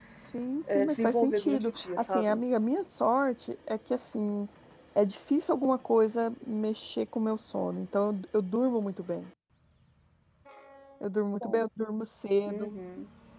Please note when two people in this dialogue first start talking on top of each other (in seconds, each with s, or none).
0.8 s